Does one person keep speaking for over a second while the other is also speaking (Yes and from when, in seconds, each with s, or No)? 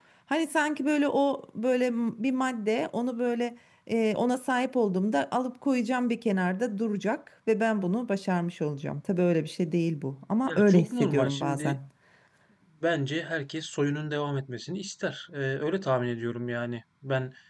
Yes, from 10.5 s